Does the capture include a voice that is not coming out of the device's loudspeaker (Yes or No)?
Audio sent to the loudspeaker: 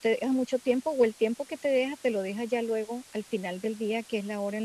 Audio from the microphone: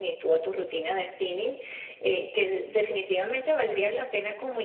Yes